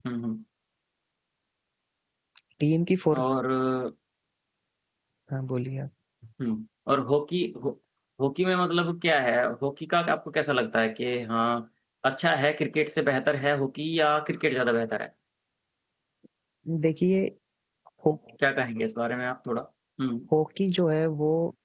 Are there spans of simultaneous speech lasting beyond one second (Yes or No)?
No